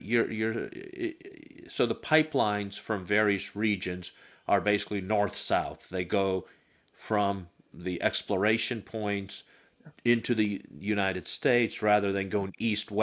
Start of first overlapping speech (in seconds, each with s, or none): none